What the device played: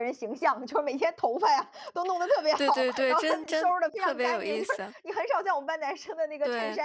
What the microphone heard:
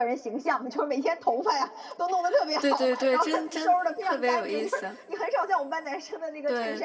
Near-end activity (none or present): none